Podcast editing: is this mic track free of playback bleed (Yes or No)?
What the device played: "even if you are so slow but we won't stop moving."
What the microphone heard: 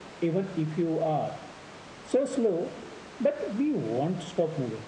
No